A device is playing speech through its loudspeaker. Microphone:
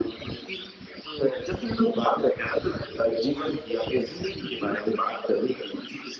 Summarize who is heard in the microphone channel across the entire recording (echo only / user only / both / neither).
echo only